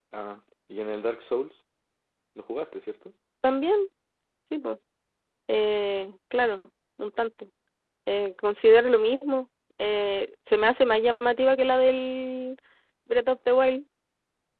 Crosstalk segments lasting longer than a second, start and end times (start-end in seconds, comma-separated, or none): none